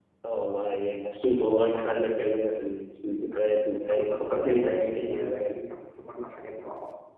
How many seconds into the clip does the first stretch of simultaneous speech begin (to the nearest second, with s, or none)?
4 s